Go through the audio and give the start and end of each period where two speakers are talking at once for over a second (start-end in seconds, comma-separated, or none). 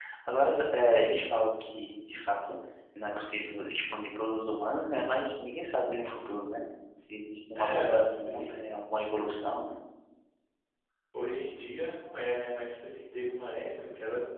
7.5-8.8